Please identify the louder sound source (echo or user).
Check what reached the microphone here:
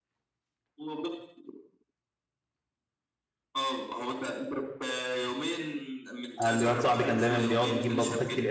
user